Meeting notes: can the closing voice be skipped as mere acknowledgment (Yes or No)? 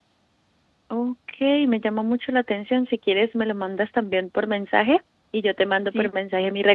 Yes